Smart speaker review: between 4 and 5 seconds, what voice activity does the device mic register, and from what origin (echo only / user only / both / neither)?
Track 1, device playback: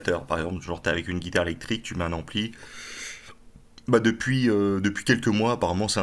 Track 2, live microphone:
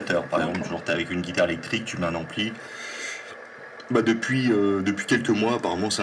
echo only